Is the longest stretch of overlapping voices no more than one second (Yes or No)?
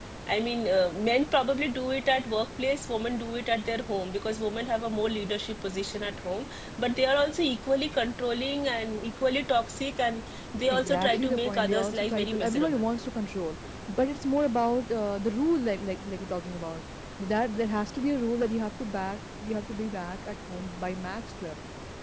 No